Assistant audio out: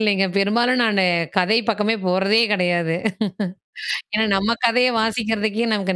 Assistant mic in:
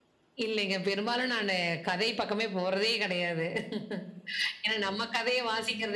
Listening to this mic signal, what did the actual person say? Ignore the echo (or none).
none